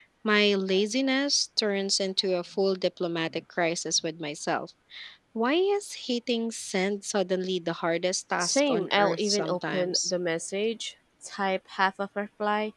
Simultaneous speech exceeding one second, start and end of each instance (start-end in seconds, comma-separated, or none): 8.4-10.1